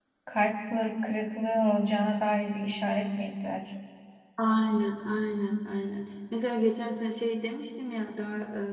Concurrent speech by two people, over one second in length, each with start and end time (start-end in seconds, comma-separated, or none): none